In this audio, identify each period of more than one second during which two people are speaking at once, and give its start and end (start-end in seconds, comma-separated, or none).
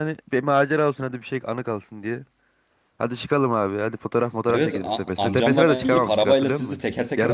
4.5-6.8